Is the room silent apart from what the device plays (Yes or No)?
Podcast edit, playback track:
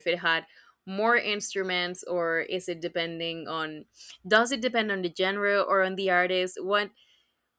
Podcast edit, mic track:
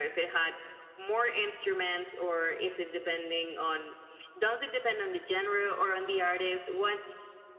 Yes